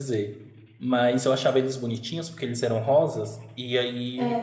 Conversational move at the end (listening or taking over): listening